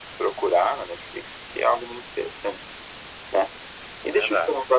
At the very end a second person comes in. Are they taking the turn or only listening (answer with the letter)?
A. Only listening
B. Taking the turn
A